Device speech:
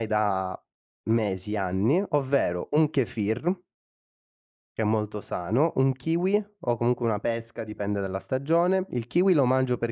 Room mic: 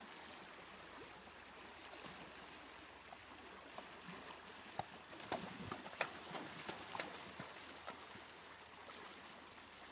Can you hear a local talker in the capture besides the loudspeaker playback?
No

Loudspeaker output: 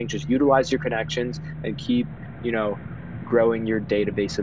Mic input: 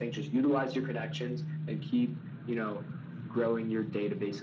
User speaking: No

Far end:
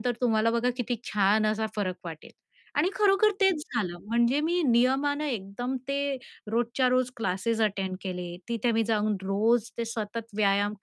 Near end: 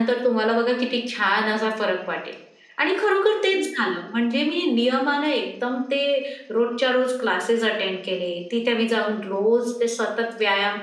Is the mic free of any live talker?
Yes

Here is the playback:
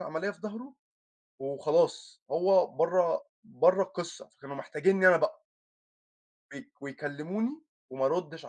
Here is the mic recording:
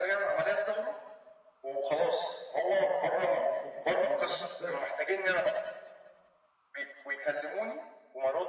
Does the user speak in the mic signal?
Yes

